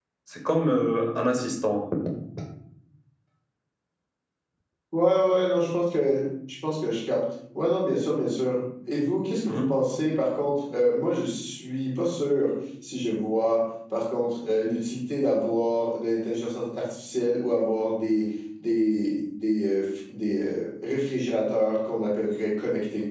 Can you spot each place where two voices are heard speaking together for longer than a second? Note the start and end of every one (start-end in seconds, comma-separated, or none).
none